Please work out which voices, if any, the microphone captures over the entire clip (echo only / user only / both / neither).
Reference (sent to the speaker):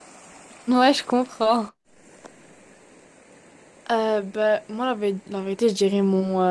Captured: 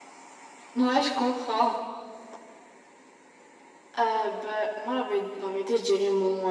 echo only